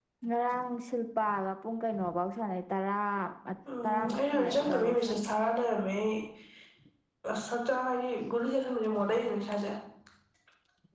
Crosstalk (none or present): present